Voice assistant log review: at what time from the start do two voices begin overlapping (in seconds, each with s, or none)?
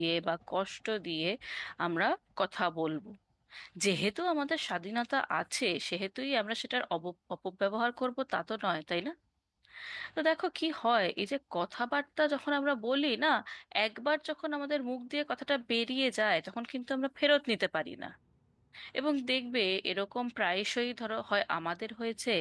none